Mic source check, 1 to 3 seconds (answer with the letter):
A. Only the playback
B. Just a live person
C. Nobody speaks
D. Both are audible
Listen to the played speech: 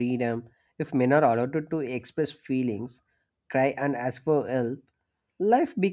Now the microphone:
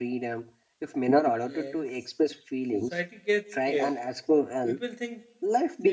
D